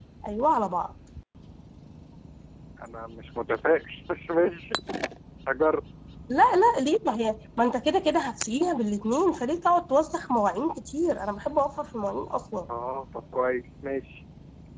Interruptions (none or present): none